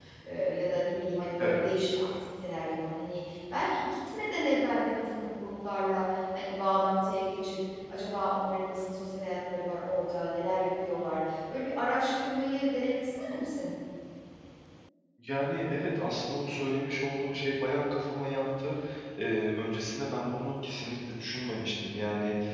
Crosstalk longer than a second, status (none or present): none